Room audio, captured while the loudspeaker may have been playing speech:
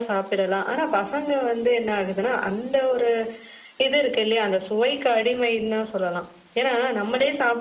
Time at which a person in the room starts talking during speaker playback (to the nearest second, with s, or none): none